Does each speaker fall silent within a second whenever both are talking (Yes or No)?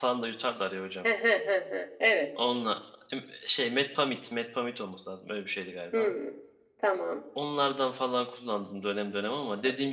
Yes